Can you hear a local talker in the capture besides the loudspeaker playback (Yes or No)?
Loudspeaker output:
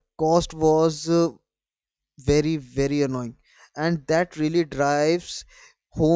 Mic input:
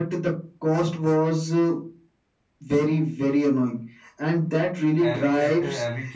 Yes